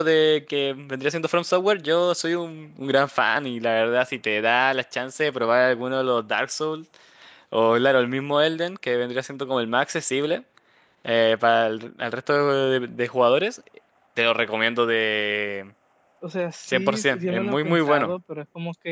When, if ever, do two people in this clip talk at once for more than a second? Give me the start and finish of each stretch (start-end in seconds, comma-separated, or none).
16.6-18.1